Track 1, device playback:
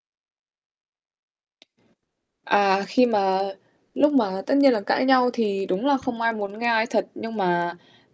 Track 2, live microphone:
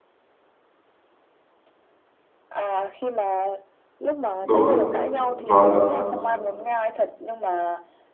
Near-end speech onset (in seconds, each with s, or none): 4.4 s